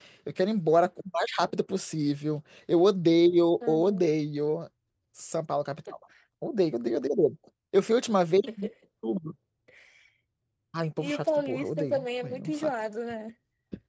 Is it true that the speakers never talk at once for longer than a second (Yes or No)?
No